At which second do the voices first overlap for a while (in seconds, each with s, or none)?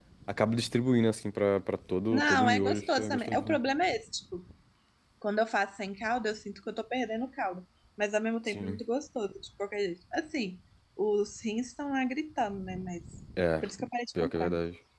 2.1 s